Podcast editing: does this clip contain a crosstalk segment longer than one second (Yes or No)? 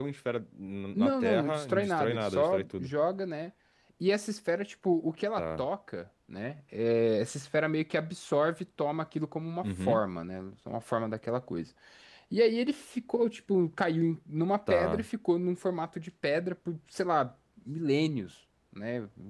Yes